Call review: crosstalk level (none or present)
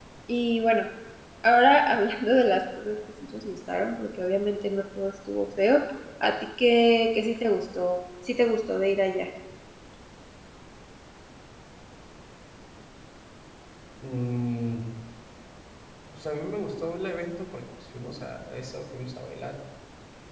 none